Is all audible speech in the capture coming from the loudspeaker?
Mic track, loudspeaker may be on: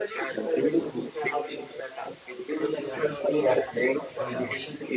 No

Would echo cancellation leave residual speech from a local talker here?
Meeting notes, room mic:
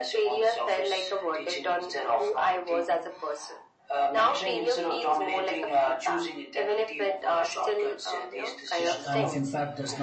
Yes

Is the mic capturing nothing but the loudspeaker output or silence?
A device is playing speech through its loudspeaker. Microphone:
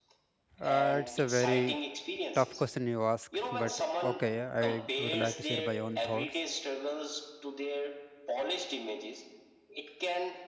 No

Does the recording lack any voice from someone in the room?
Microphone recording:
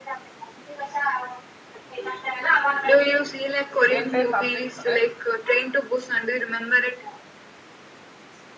No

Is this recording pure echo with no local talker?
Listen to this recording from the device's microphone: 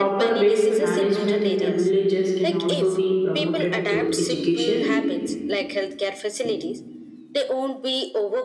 No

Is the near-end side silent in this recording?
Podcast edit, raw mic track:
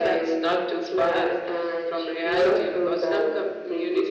Yes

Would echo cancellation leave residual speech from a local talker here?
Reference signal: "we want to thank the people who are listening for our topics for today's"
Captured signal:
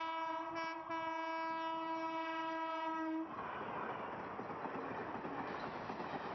No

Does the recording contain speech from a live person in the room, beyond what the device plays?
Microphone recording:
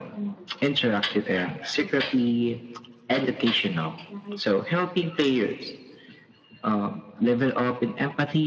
No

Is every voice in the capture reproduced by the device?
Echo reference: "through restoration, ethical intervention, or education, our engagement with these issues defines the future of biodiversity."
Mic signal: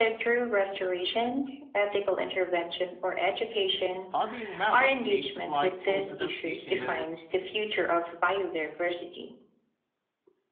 No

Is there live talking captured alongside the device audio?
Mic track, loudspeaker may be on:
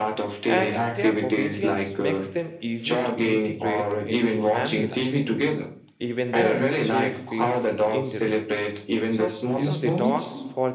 Yes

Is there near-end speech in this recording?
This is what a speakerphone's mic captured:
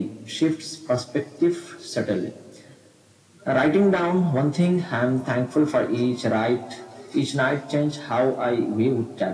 No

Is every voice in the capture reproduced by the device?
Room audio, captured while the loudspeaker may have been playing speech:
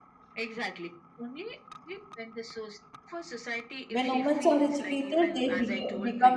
No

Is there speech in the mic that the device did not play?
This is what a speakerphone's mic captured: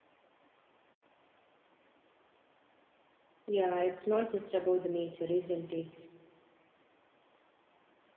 Yes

